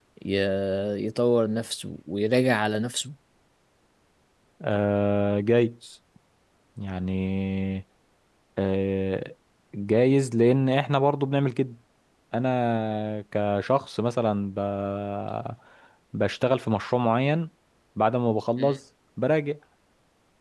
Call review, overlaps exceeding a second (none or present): none